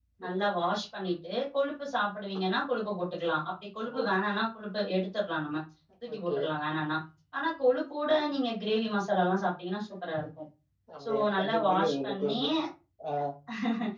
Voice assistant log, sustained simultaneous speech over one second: present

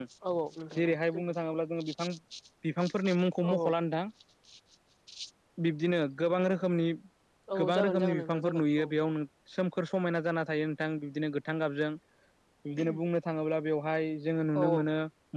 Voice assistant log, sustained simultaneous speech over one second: present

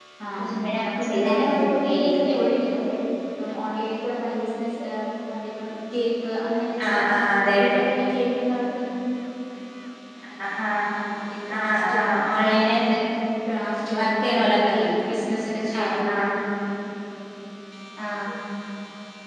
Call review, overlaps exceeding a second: present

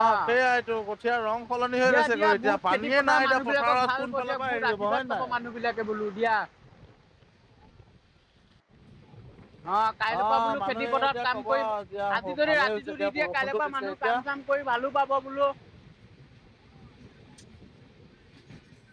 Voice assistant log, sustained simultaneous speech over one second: present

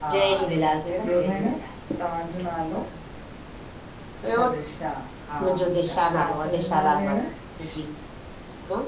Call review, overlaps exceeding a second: present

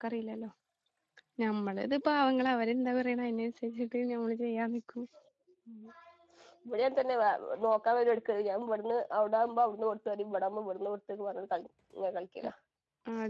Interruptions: none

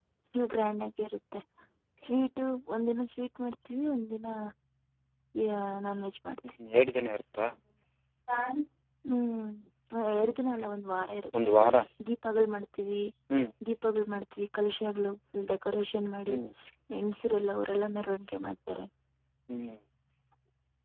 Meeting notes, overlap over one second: none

